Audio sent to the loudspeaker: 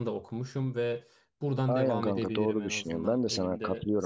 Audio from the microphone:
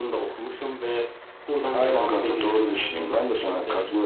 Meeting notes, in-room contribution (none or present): none